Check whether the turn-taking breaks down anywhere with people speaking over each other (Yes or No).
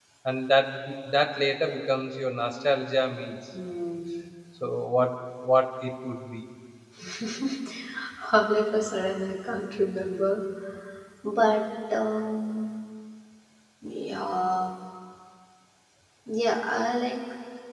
No